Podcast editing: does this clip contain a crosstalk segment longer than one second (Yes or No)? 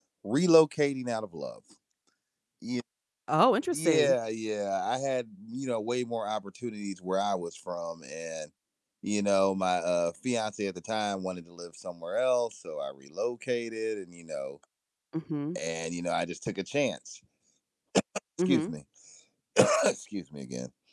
No